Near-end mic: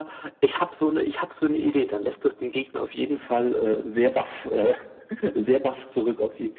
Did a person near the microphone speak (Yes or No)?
No